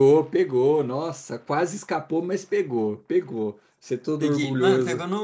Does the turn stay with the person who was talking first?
No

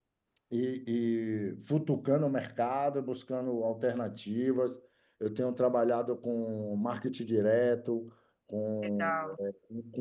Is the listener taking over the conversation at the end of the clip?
No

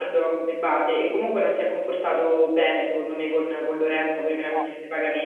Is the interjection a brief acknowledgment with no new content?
Yes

